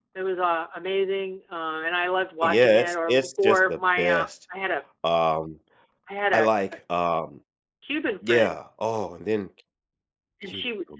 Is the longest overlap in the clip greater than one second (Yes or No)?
Yes